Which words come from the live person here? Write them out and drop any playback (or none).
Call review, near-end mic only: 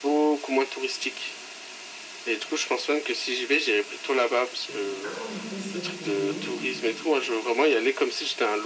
Et quand l'été se finit,